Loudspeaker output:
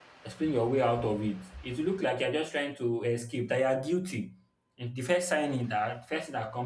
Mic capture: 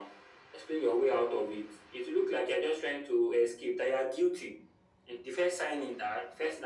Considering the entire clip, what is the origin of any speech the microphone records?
echo only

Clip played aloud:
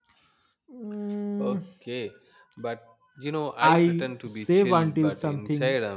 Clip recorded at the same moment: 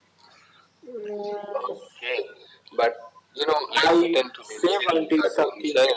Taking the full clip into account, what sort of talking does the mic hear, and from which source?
echo only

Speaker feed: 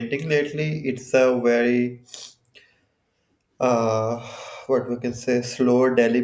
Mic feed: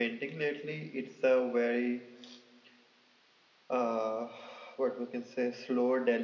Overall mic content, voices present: echo only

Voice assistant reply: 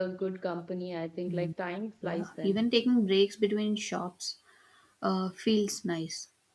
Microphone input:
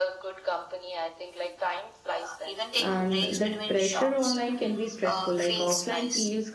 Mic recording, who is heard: both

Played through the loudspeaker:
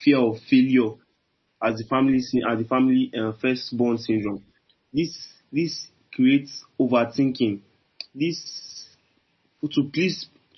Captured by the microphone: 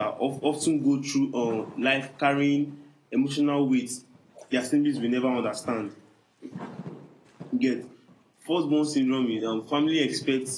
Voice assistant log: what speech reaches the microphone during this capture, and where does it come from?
user only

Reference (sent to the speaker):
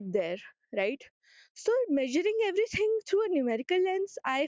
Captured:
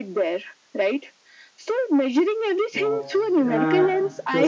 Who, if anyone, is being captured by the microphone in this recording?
both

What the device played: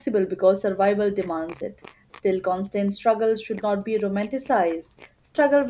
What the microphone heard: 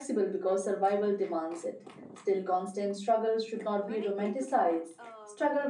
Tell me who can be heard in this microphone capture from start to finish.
both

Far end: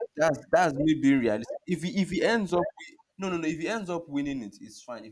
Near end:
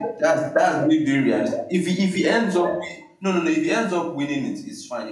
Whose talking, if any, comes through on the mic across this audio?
echo only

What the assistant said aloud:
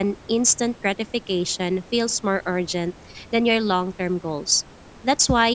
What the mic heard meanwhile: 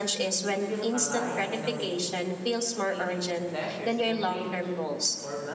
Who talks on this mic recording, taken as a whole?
both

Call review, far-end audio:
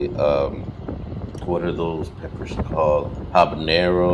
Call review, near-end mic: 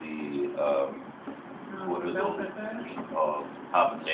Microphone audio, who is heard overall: both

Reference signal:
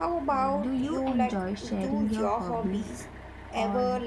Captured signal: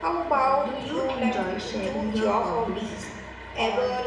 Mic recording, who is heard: echo only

